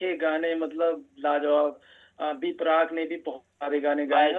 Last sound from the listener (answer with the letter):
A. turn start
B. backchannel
A